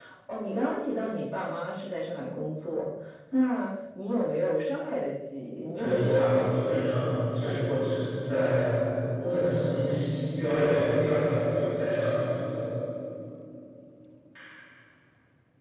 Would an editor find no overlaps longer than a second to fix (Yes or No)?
No